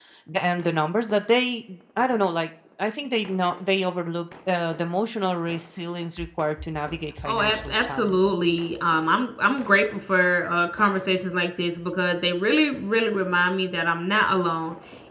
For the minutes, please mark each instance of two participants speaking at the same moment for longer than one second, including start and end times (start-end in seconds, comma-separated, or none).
7.2-8.4